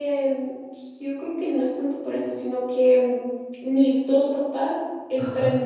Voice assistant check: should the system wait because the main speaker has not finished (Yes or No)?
No